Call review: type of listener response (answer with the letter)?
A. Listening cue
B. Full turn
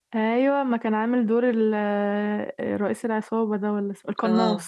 B